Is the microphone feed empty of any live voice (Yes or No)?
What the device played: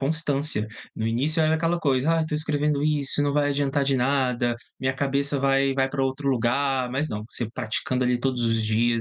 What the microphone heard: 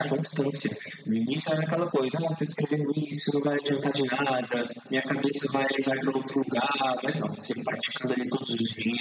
Yes